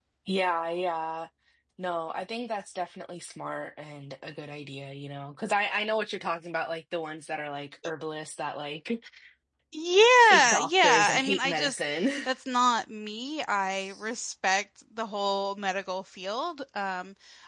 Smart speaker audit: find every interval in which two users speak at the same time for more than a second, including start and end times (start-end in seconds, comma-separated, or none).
10.3-11.7